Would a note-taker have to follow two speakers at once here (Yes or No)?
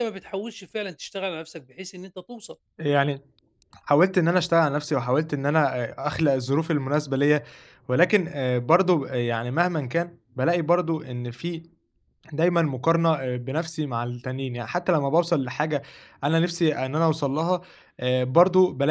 No